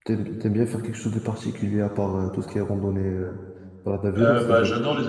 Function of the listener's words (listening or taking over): taking over